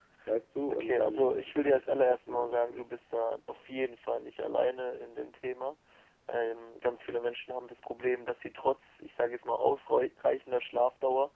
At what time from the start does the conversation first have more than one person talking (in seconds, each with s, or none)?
0.7 s